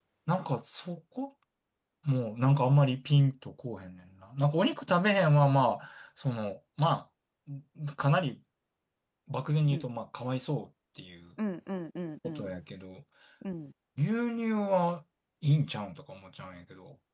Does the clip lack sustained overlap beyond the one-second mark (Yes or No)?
Yes